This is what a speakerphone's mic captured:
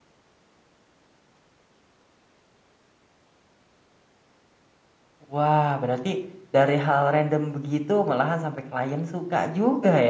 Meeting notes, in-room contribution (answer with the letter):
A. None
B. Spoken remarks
B